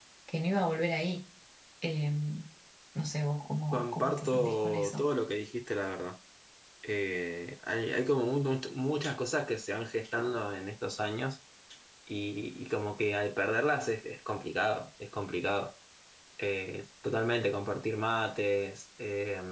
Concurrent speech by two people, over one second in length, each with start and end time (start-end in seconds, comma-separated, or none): 3.7-5.1